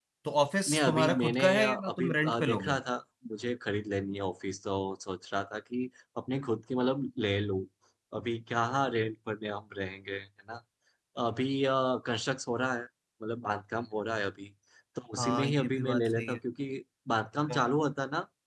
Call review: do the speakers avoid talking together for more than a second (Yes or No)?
No